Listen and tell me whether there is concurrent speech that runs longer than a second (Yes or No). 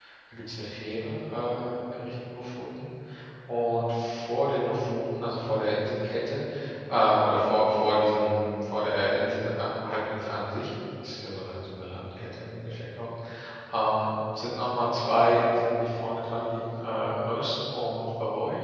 No